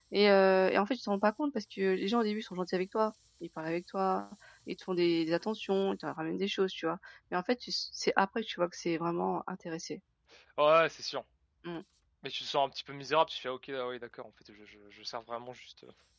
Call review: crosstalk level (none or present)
none